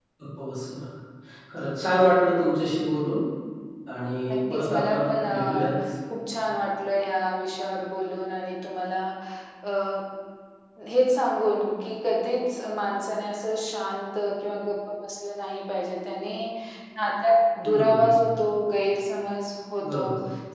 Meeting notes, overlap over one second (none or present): present